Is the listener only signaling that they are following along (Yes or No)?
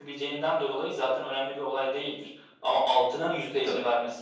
Yes